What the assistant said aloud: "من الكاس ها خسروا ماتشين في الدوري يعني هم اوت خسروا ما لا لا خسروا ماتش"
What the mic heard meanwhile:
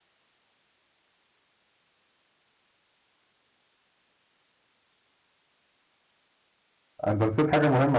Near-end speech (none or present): present